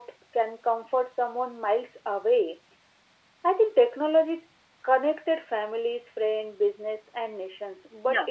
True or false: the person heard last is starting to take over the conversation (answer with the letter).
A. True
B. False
B